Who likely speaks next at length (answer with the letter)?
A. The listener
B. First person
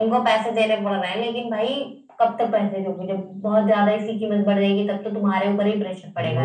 A